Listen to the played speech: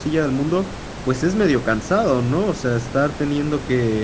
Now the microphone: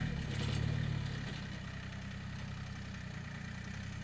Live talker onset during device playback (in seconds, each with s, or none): none